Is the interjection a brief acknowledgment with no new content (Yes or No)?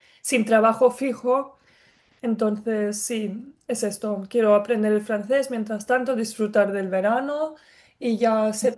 Yes